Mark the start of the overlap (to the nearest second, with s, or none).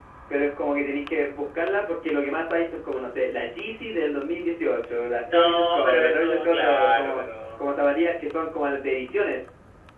5 s